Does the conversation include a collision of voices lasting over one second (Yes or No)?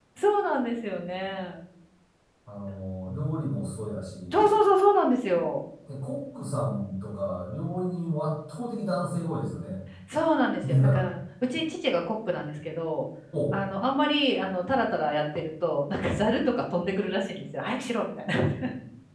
No